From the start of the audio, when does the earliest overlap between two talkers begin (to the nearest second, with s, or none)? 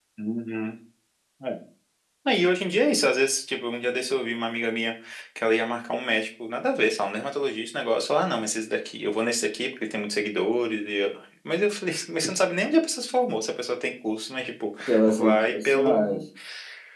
15 s